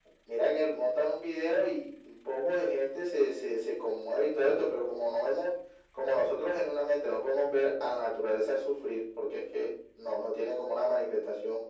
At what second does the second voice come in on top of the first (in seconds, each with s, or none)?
none